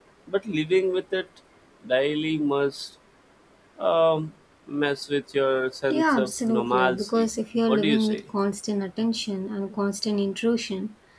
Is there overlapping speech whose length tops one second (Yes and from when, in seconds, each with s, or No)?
Yes, from 5.9 s